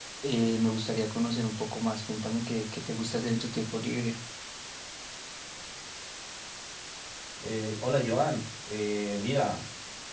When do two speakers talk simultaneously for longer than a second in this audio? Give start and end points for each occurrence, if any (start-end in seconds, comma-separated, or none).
none